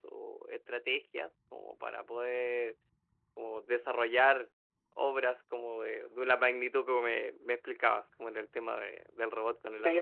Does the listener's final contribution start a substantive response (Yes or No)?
Yes